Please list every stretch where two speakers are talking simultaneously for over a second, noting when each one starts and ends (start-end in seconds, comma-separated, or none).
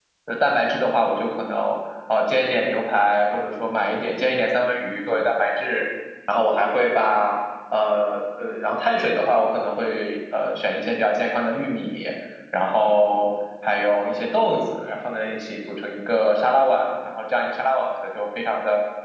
none